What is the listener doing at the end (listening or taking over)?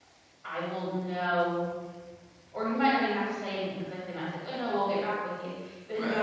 listening